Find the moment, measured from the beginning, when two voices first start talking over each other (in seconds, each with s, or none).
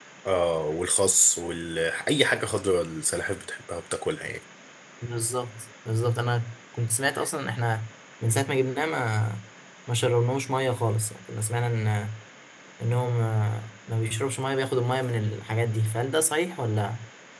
none